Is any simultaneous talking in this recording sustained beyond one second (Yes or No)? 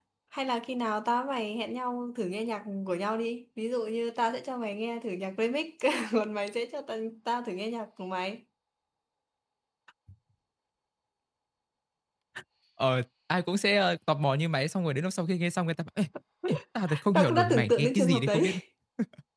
Yes